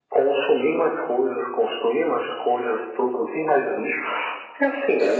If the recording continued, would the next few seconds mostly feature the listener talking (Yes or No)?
No